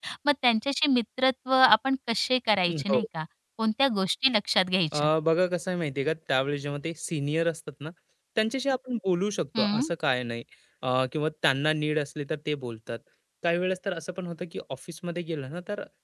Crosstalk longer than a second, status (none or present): none